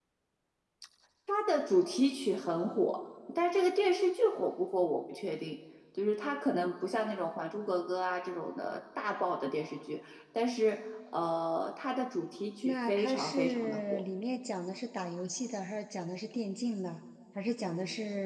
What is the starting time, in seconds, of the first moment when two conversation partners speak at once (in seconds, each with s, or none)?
12.6 s